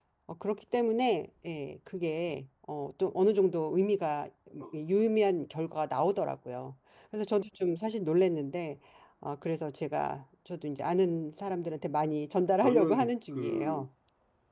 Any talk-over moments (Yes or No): Yes